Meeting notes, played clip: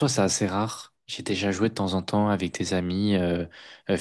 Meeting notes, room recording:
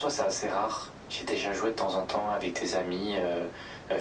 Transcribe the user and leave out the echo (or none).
none